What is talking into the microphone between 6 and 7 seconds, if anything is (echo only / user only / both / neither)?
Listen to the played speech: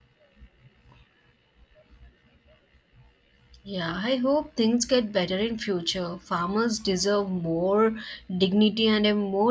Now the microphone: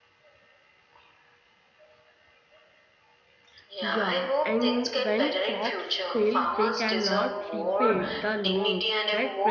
both